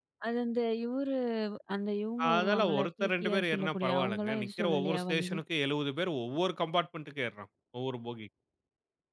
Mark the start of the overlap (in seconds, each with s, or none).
2.3 s